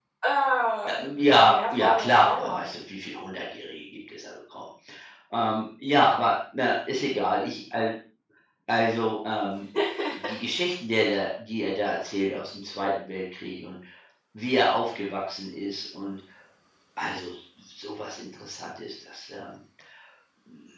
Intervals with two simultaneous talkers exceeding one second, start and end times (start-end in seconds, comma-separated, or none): 0.9-2.6